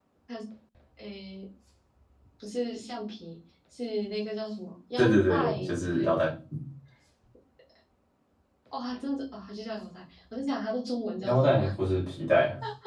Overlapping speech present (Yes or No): Yes